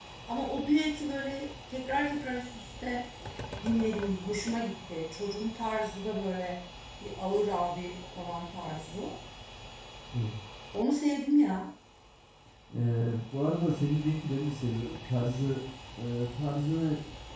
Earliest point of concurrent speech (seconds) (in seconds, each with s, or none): none